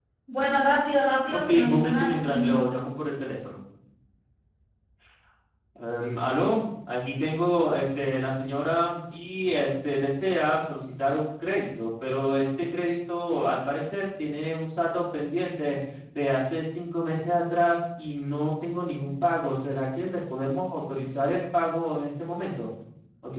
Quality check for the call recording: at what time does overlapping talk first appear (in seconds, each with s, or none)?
1.3 s